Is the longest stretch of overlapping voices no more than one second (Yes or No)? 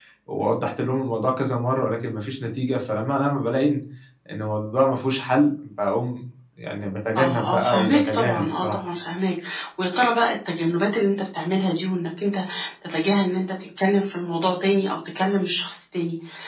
No